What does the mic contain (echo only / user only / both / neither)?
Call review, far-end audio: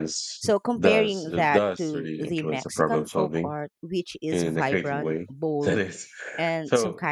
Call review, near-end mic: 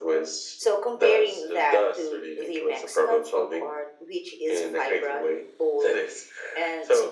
echo only